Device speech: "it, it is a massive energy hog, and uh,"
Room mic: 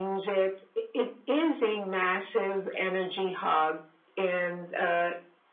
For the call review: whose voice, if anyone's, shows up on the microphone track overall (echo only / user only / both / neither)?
echo only